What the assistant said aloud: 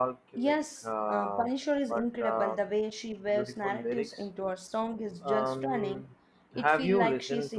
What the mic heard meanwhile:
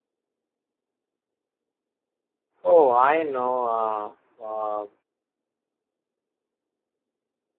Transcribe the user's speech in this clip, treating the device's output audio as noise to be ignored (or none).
Oh, I know uh, uh,